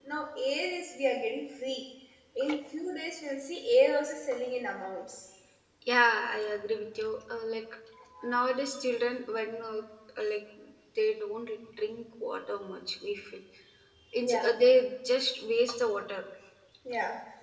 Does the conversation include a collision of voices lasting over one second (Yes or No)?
No